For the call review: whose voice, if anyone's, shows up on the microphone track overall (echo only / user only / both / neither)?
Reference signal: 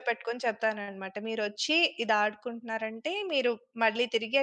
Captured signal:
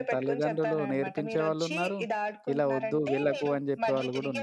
both